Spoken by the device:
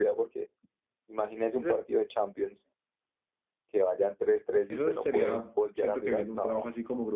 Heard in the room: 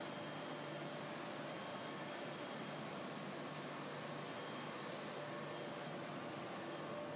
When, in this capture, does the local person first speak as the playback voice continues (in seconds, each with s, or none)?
none